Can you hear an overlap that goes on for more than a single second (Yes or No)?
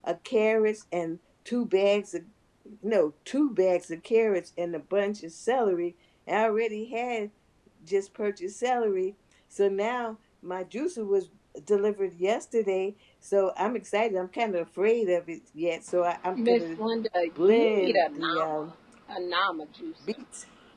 Yes